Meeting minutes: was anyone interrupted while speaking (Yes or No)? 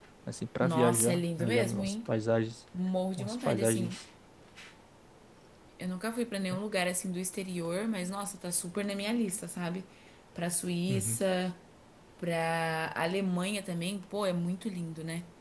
Yes